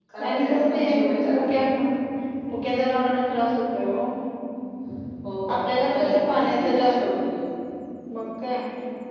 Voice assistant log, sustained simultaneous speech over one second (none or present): present